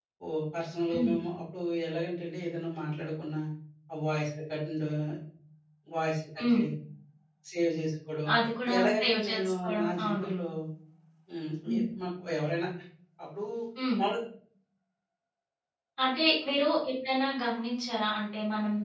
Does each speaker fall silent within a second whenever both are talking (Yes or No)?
No